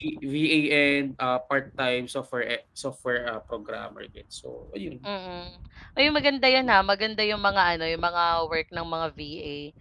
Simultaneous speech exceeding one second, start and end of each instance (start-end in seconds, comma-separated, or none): none